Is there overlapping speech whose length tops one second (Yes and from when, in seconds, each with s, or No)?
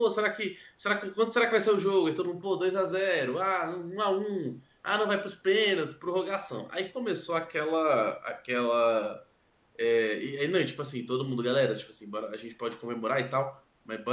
No